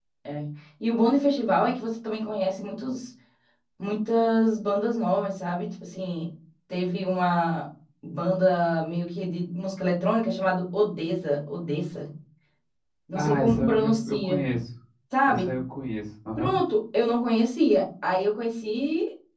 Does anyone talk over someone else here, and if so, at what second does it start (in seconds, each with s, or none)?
13.2 s